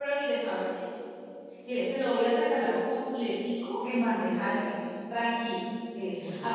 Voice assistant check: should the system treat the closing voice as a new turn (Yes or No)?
No